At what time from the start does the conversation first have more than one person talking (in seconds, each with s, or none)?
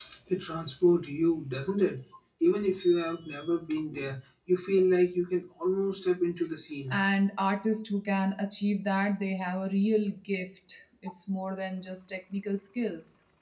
none